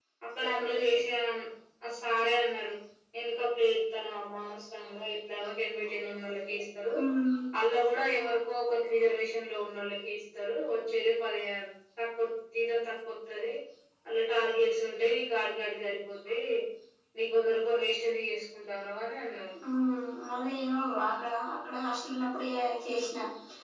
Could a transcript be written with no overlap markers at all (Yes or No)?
Yes